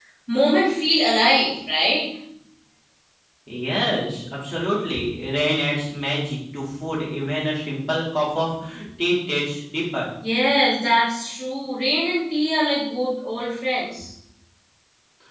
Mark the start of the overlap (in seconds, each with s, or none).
none